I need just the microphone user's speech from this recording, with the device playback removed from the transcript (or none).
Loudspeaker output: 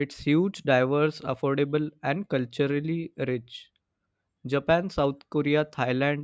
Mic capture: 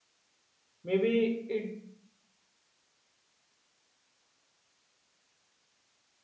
Maybe it